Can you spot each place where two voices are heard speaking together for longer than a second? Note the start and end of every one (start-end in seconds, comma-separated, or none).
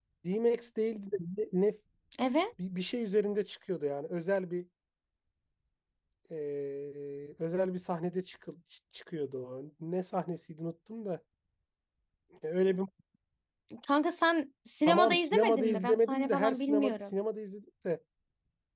14.9-17.1